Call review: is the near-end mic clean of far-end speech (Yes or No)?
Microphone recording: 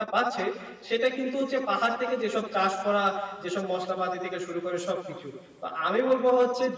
Yes